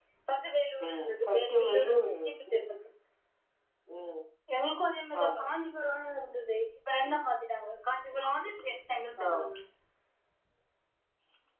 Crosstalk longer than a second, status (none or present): present